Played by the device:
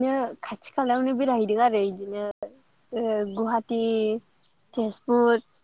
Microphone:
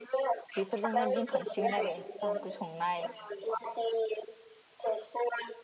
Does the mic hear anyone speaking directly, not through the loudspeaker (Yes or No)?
Yes